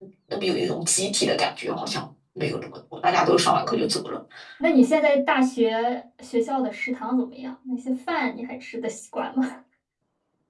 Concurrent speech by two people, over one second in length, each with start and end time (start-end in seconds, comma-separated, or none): none